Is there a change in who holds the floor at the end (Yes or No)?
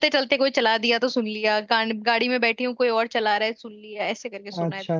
Yes